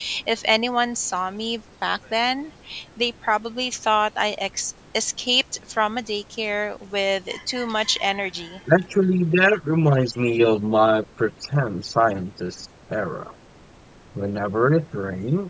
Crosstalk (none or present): none